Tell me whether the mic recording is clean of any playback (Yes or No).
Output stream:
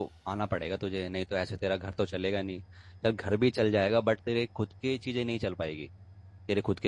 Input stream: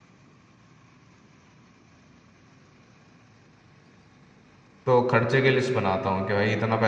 Yes